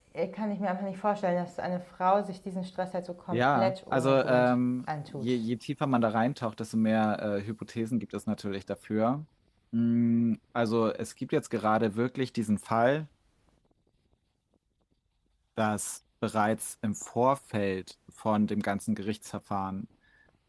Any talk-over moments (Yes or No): Yes